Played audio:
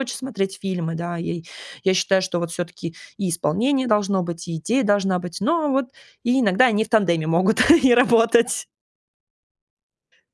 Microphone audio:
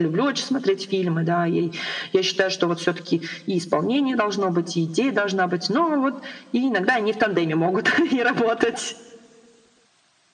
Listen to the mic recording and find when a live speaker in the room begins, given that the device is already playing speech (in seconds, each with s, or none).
none